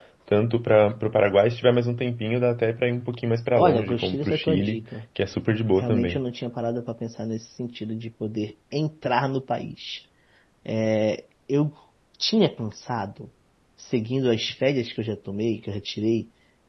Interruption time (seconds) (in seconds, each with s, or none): 3.6 s